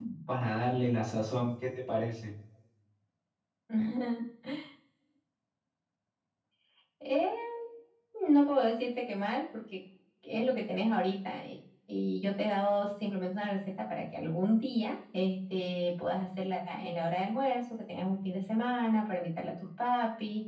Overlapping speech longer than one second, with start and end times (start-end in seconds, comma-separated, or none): none